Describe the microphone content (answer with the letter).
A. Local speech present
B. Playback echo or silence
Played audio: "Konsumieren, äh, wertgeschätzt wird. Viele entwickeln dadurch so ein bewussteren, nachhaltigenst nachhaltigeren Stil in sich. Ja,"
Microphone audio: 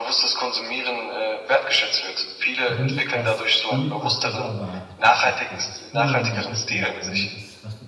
A